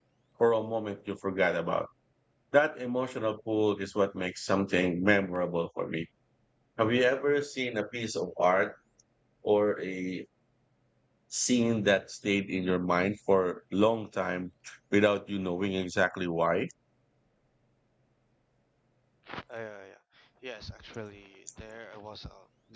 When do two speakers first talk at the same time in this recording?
none

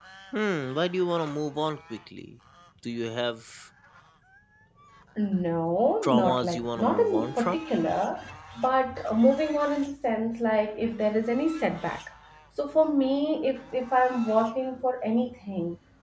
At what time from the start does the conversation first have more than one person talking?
6.0 s

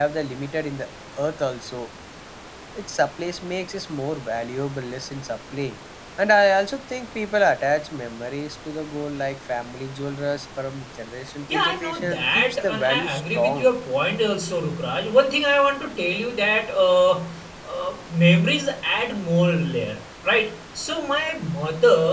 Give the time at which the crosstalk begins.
11.5 s

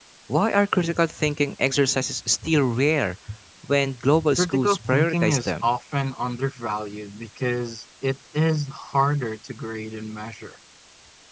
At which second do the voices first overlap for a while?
4.4 s

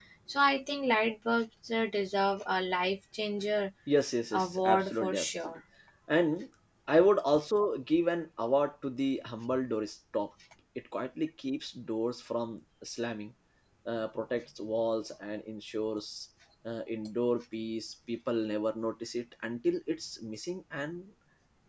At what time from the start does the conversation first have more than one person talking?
4.3 s

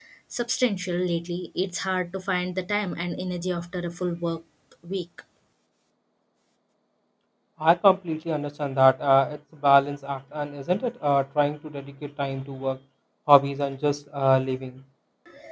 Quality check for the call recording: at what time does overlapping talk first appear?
none

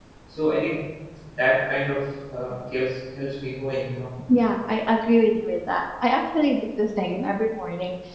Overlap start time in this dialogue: none

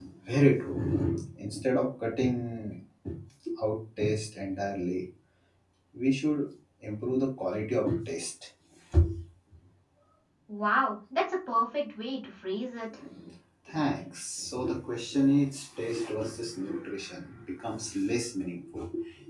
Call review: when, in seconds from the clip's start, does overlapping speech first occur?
none

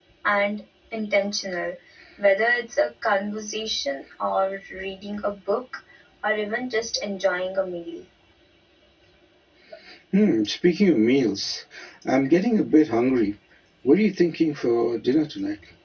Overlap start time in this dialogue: none

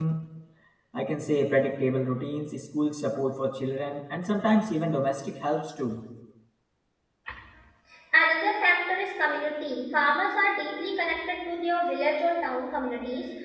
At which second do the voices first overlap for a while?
none

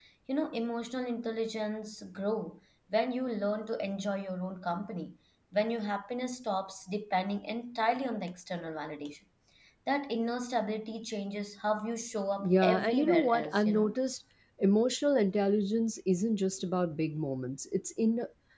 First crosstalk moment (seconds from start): 12.4 s

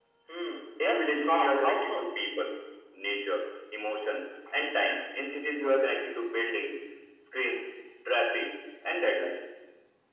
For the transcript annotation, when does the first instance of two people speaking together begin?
0.8 s

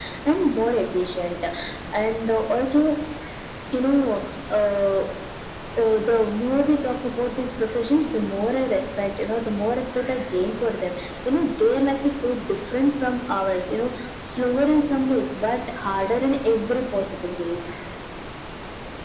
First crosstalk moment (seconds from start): none

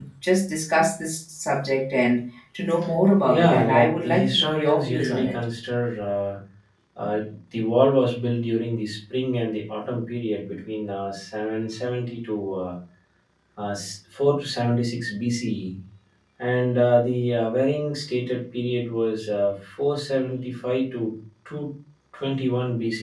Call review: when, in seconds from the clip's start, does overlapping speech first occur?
3.2 s

